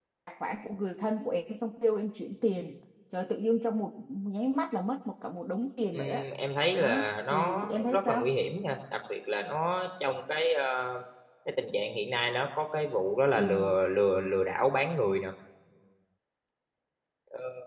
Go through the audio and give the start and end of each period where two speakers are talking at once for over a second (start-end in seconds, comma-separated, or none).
6.8-8.3